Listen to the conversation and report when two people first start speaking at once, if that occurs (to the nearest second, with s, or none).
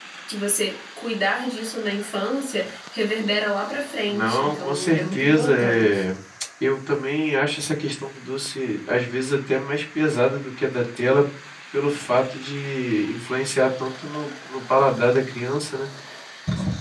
4 s